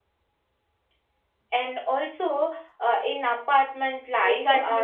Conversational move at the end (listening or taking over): taking over